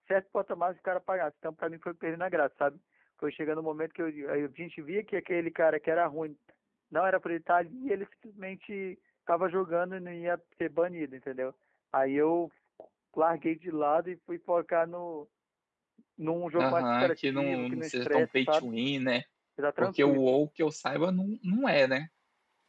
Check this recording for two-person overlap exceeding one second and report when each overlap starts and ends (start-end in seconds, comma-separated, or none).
16.6-18.7